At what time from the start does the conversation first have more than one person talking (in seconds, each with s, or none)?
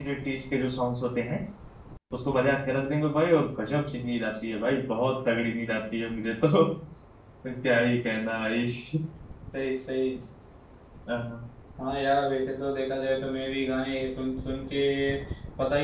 none